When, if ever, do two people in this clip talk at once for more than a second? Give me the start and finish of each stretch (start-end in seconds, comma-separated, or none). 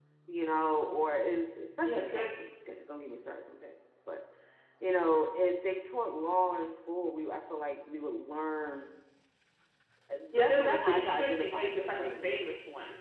10.3-12.5